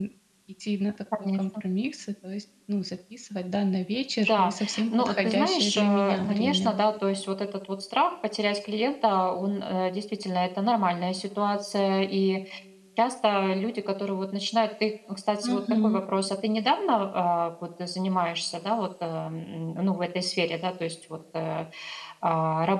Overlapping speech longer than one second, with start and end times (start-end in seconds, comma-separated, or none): 4.2-6.7